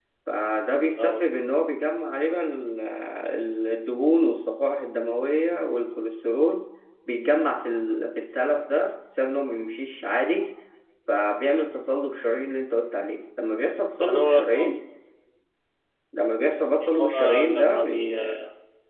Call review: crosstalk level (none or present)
present